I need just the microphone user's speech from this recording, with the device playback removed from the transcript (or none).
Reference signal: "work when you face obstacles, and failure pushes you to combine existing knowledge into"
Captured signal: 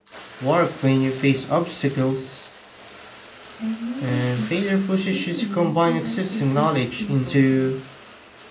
I've noticed that failure can also teach people to